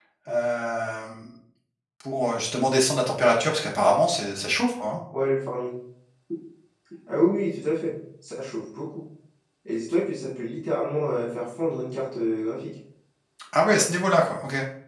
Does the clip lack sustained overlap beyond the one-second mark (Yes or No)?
Yes